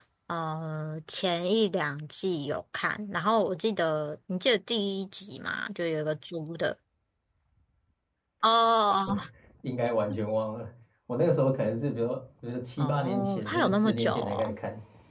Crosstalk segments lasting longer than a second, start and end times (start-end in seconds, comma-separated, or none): 12.8-14.6